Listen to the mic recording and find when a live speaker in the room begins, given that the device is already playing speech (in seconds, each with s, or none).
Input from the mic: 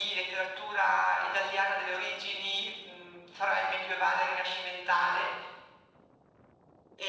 none